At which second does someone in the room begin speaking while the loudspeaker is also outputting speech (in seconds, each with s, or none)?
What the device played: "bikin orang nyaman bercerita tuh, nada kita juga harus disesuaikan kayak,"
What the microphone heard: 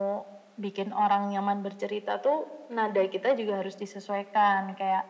none